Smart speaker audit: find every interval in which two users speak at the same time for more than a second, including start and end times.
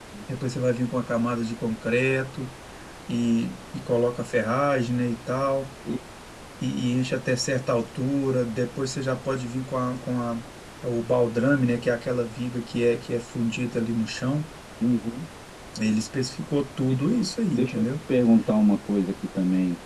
none

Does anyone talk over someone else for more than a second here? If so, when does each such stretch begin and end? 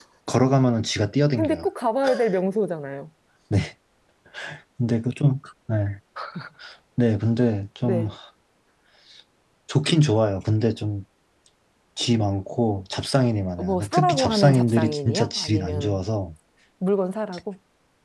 13.6-16.0

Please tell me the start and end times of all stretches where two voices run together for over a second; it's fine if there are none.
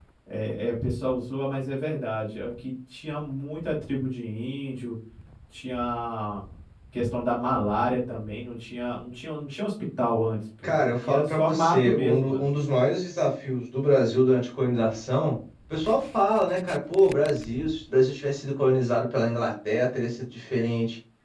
10.6-12.5

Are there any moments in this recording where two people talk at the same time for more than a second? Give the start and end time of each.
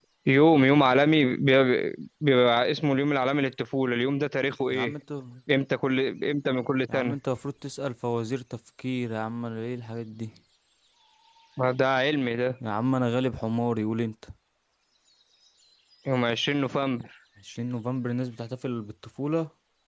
none

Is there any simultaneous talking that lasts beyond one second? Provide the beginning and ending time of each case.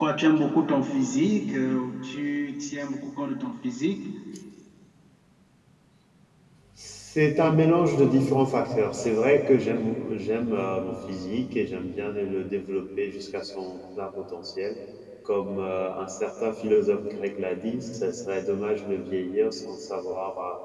none

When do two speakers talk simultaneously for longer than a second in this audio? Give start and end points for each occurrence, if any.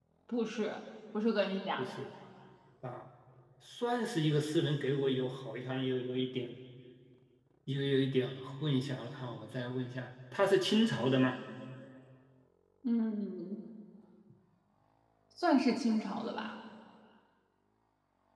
none

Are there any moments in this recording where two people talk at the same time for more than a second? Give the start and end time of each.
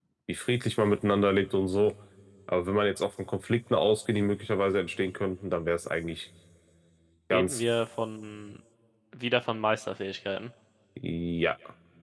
none

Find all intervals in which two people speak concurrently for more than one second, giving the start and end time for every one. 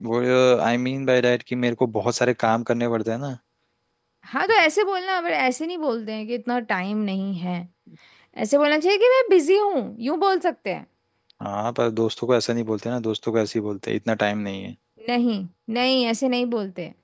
none

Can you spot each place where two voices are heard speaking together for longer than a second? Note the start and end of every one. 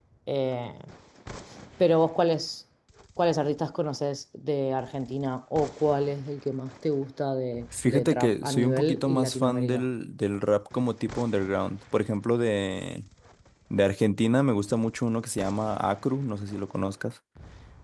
7.8-9.8

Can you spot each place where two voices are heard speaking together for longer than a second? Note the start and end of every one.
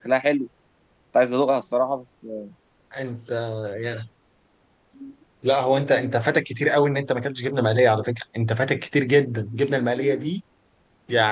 none

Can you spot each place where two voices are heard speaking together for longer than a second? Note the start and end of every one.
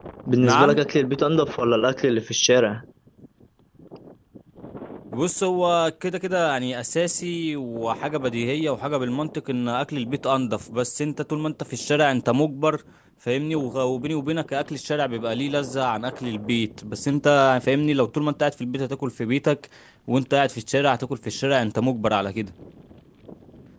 none

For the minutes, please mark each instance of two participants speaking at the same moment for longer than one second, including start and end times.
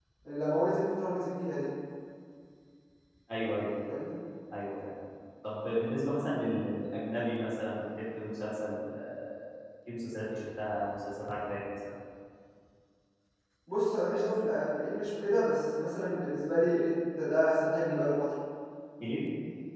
none

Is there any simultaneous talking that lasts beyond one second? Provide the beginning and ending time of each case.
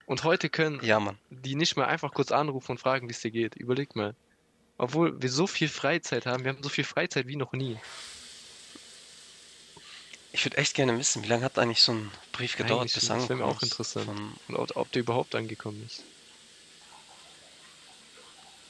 12.6-14.2

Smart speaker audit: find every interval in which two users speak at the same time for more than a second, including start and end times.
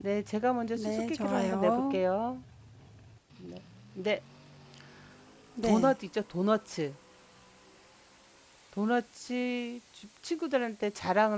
0.8-2.0

